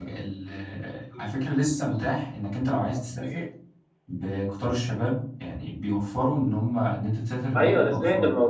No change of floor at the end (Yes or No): No